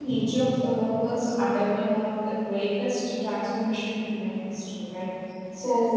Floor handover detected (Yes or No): No